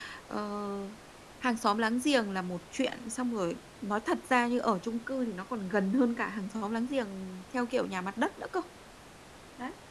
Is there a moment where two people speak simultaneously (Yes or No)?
No